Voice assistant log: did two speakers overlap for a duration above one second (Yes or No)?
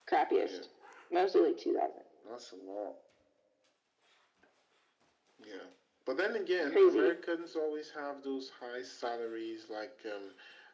No